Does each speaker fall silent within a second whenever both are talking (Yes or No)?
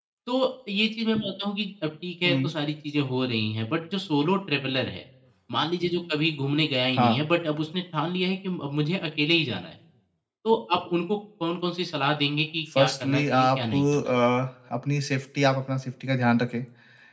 No